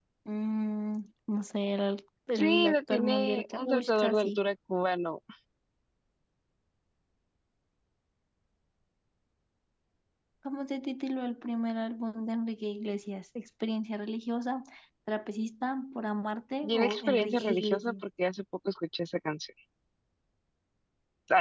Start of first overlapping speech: 2.4 s

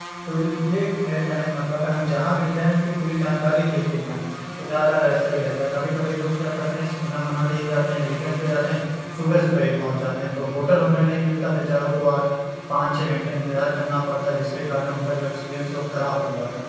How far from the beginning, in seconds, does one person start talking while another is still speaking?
none

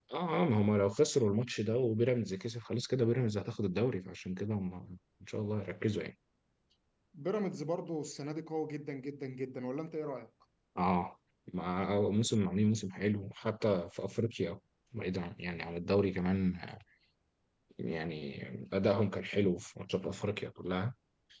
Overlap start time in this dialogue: none

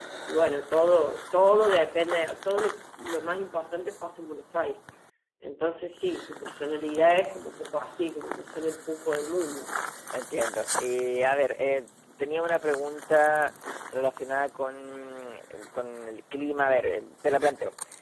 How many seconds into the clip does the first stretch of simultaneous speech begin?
none

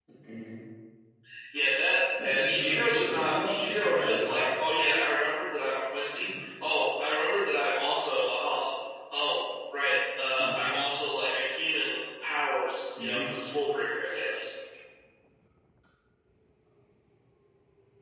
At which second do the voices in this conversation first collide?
2.2 s

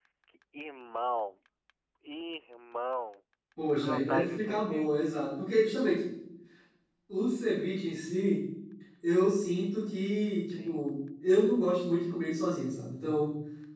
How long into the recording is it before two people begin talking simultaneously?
3.8 s

